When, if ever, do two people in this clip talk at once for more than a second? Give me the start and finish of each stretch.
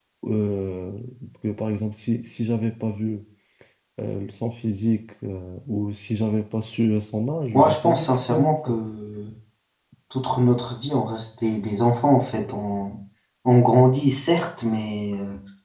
7.5-8.8

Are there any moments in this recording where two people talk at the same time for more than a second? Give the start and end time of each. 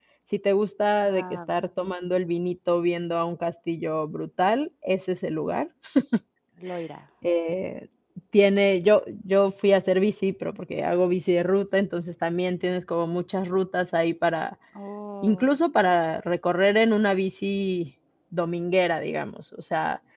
none

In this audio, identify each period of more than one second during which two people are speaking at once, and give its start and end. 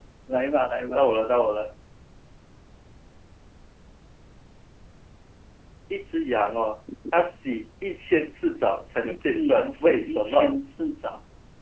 9.0-10.6

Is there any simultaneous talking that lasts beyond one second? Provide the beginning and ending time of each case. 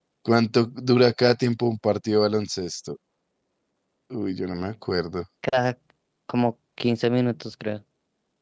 none

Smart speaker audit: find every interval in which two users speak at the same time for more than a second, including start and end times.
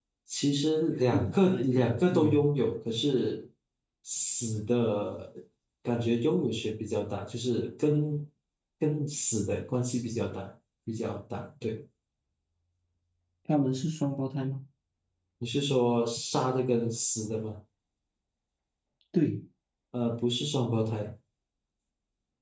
1.1-2.5

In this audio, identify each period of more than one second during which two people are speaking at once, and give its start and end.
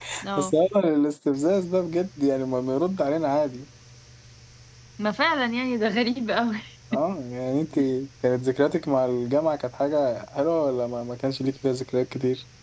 none

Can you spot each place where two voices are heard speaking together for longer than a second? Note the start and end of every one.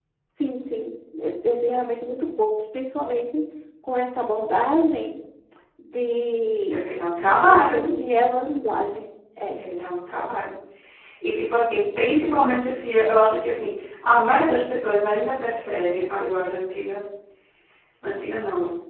none

